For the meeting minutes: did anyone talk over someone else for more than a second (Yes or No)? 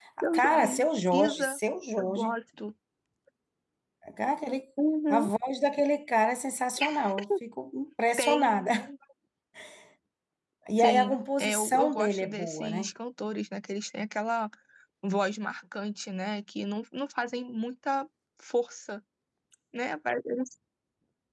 Yes